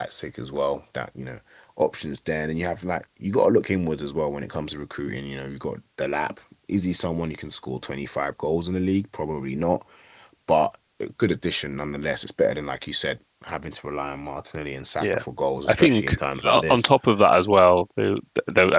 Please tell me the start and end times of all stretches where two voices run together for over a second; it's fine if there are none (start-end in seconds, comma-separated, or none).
15.6-16.9